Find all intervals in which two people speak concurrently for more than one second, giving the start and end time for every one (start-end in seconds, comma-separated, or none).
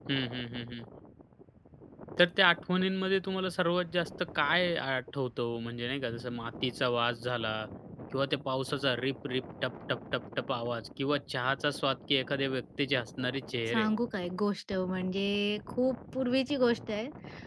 none